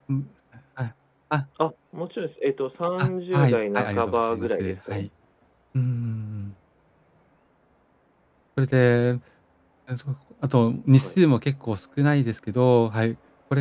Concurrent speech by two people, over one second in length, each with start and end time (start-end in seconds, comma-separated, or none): 3.0-5.1